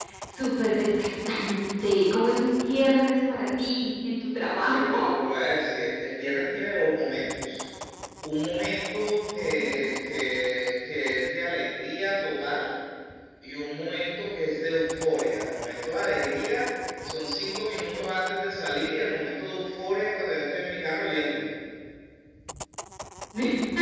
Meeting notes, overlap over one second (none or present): none